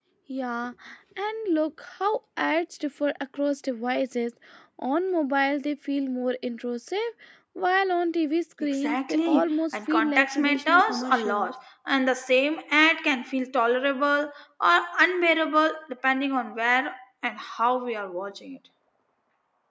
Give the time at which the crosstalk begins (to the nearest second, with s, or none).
9 s